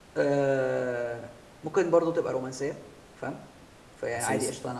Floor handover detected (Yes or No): No